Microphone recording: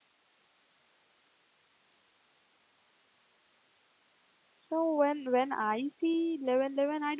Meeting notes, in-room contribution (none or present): present